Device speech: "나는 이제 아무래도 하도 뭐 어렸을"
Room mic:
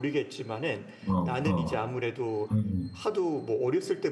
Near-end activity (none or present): present